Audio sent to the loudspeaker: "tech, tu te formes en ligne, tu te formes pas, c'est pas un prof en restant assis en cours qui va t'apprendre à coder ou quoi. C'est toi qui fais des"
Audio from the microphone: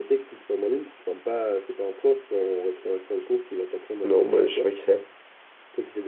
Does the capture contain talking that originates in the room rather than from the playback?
Yes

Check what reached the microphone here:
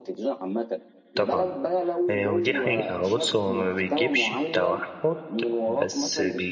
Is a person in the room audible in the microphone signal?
Yes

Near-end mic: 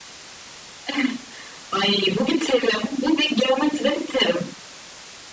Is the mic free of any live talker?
Yes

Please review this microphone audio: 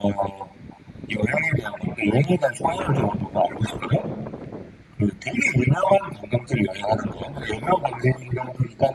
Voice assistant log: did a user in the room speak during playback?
No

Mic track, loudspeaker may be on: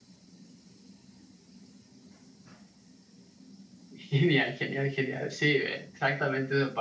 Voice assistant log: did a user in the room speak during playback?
Yes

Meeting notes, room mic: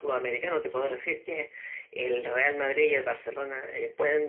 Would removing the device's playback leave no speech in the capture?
No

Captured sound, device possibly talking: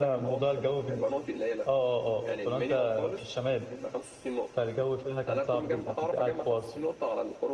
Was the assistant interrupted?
Yes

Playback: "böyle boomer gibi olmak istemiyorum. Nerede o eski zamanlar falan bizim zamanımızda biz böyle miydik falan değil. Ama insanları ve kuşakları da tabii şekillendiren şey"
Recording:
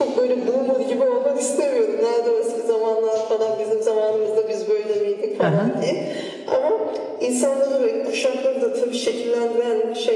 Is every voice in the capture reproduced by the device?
No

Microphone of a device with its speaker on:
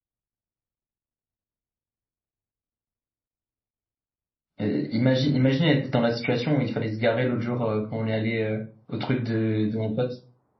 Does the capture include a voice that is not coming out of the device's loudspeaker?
Yes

